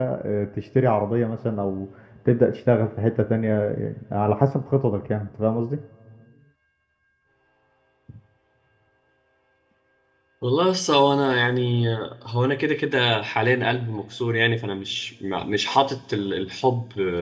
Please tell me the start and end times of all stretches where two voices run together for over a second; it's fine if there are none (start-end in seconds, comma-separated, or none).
none